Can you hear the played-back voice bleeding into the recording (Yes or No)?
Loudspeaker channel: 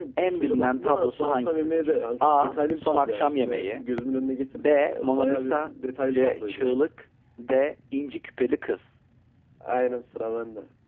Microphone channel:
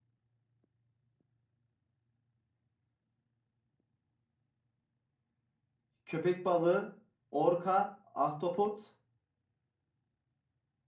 No